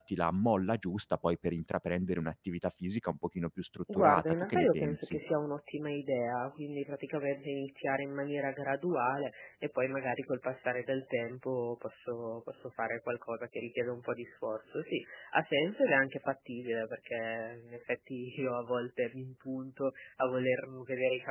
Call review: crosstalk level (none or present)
present